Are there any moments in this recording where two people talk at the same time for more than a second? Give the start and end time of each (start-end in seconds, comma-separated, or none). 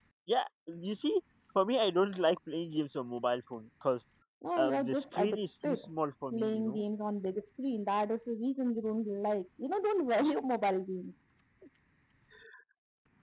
4.6-5.8